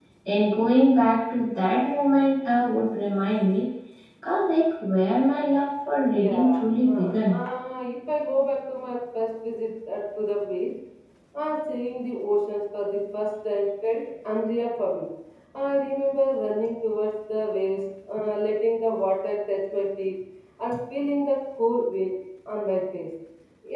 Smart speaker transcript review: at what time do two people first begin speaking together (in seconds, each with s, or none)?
6.1 s